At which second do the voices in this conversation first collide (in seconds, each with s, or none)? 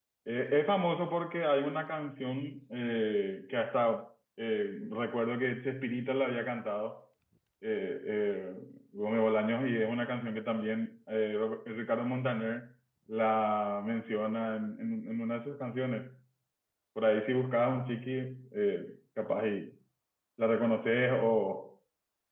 none